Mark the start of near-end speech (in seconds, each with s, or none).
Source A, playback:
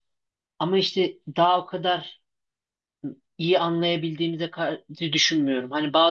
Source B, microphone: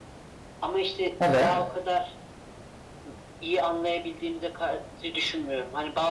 1.2 s